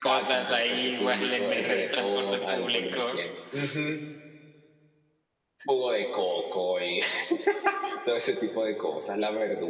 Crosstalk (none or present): present